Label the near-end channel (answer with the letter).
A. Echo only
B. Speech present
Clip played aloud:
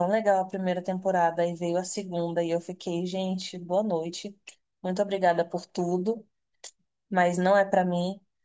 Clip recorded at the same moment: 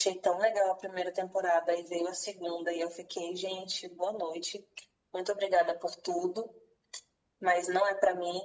A